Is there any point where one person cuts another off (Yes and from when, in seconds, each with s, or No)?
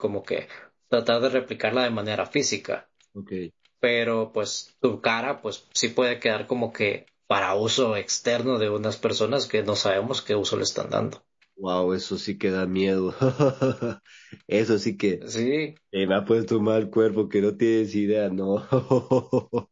No